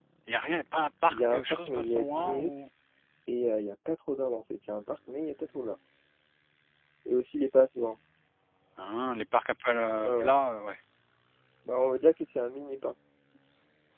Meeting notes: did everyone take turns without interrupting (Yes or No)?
No